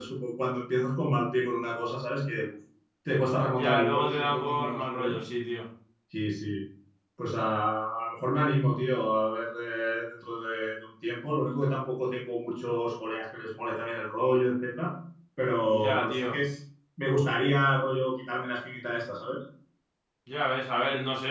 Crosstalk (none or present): present